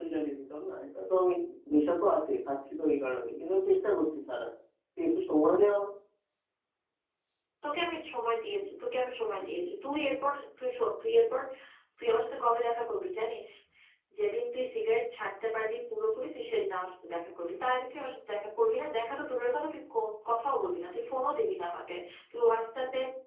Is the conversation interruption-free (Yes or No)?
Yes